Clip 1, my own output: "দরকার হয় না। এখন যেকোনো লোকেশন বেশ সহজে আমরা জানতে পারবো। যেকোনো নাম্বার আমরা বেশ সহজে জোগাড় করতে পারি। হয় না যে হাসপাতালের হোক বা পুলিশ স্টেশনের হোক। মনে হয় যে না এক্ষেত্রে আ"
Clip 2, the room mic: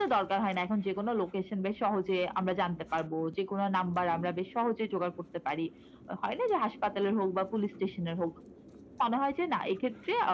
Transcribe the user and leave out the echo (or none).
none